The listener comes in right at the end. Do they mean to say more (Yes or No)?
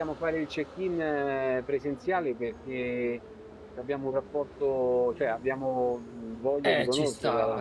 Yes